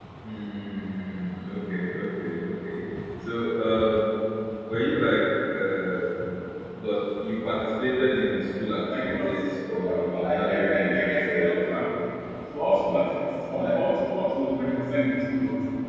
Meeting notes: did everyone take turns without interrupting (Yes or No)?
No